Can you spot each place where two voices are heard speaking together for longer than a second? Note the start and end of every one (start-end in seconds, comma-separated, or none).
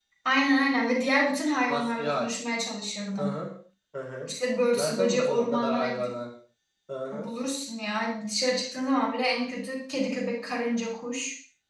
4.8-6.1